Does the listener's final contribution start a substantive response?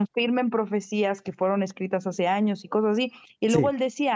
No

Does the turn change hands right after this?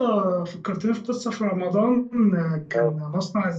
No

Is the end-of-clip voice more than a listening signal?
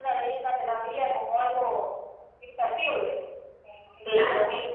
Yes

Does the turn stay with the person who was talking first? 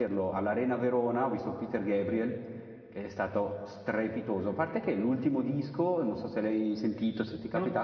Yes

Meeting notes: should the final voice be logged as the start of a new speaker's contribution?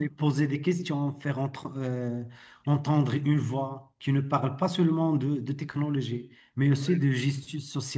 No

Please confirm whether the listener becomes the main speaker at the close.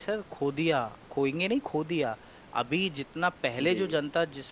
No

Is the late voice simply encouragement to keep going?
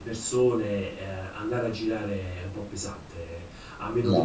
Yes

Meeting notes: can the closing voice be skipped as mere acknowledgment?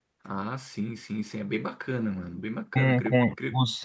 No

